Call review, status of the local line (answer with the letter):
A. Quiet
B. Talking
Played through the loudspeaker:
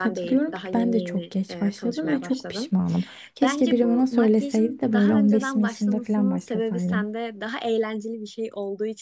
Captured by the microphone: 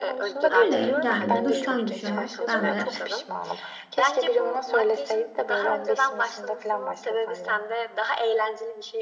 B